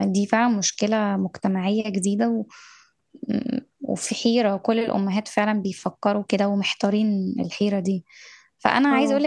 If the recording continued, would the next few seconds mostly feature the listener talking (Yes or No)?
No